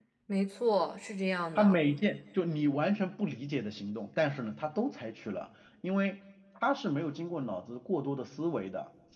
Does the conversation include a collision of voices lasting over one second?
No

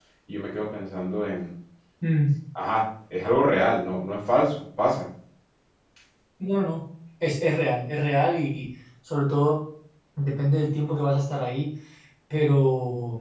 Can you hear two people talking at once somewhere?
No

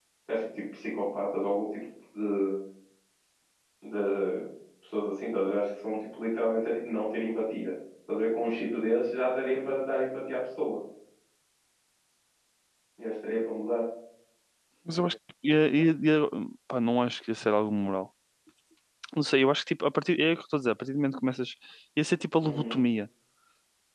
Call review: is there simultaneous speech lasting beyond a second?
No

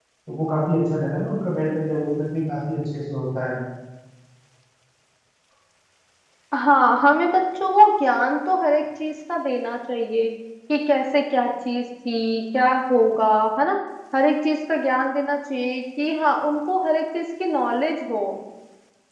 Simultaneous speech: No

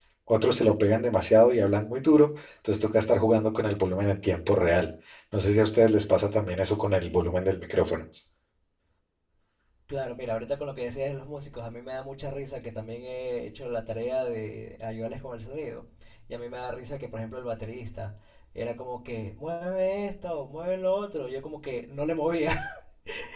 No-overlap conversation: Yes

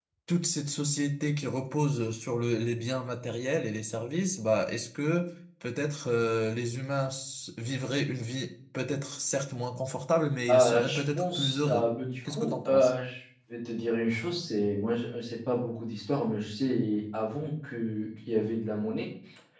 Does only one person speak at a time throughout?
No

